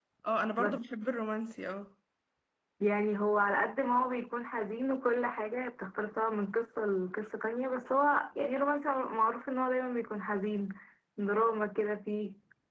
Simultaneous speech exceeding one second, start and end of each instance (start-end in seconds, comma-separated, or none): none